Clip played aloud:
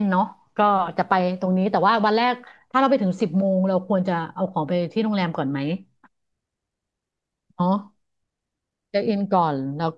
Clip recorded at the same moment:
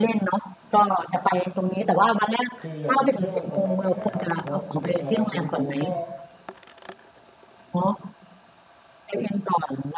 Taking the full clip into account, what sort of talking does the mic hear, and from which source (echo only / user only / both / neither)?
both